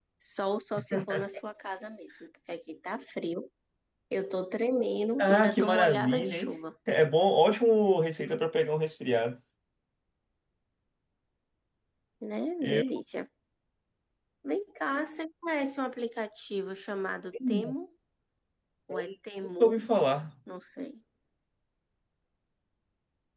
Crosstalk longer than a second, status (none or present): present